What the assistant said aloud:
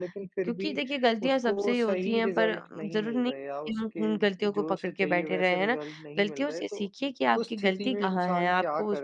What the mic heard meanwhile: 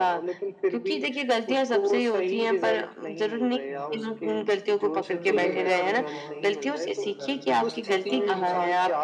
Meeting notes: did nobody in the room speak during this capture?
No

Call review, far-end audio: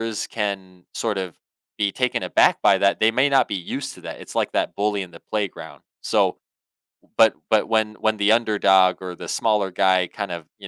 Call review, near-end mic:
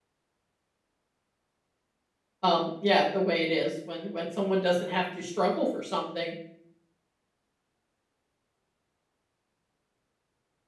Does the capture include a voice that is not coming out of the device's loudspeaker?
Yes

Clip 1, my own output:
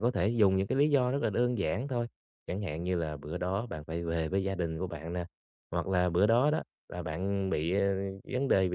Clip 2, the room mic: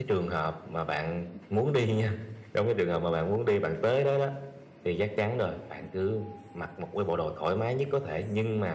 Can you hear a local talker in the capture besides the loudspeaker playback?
Yes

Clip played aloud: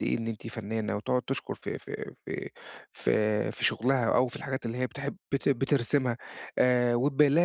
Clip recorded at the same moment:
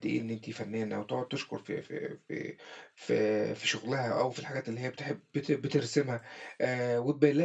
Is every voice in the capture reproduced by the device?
Yes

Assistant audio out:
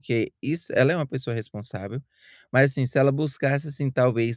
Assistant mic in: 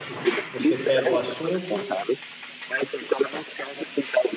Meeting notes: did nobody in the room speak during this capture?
No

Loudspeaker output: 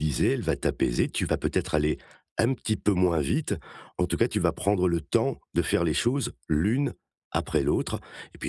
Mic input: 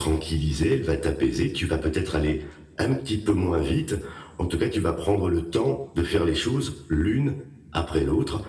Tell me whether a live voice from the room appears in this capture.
No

